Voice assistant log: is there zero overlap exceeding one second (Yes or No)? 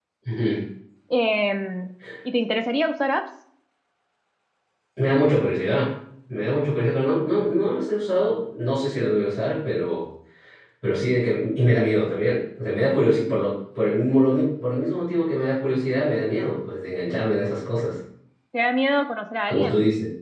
Yes